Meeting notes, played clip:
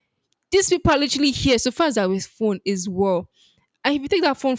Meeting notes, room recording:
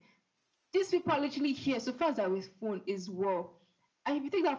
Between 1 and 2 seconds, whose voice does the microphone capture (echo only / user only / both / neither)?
echo only